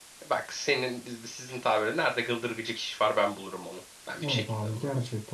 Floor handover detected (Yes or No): Yes